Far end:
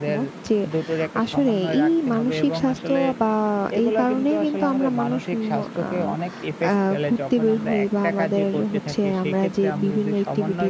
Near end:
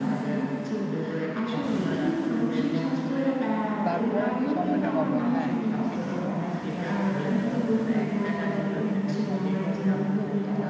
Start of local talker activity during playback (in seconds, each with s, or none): 3.9 s